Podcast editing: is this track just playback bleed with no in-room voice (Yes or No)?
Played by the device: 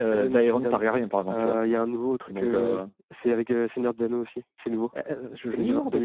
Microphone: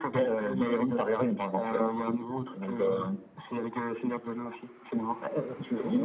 Yes